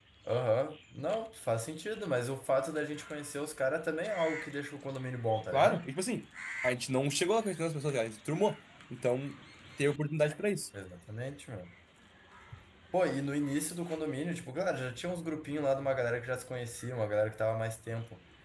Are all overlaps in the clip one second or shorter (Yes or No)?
Yes